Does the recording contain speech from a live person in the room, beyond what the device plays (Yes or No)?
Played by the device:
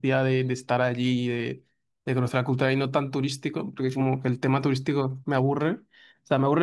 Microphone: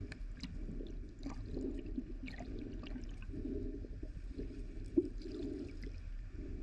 No